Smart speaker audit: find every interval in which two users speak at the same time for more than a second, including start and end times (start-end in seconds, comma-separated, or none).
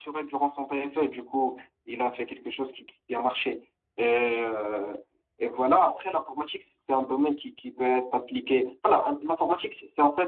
none